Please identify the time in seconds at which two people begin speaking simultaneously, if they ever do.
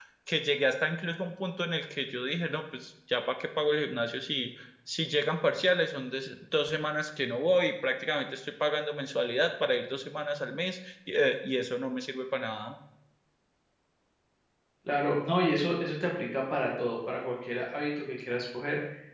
none

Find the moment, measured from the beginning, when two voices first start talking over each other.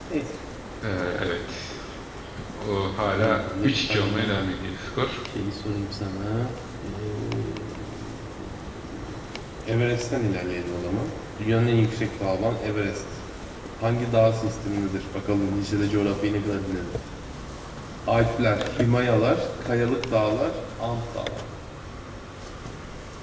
3.2 s

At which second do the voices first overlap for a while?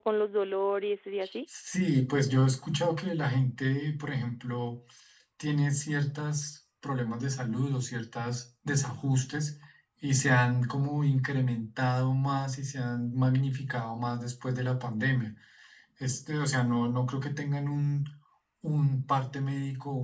none

